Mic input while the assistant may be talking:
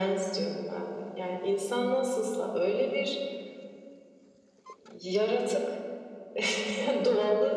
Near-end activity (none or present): none